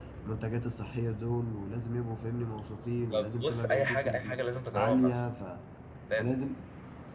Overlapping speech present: Yes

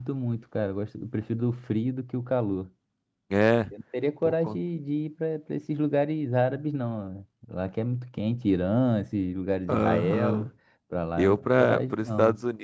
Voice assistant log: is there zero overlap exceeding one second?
No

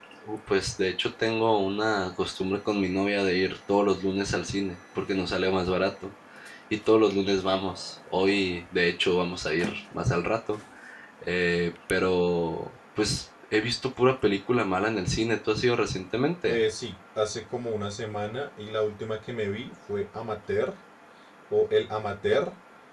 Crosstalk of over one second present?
No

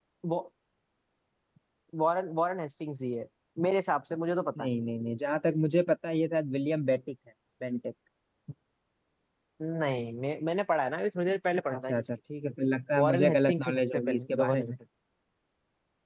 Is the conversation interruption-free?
No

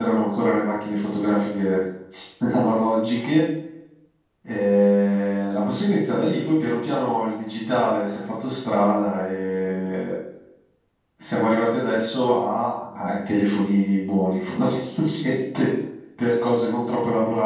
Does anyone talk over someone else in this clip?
No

